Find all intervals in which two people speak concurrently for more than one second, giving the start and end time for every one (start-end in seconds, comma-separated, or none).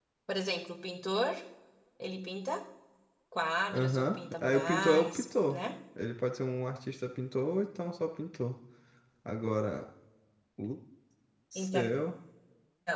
3.7-5.6